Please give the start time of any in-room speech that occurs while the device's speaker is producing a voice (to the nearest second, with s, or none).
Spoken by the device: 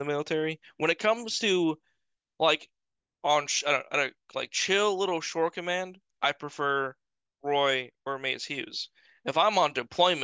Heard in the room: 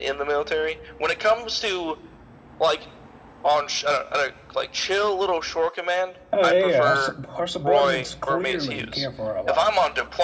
6 s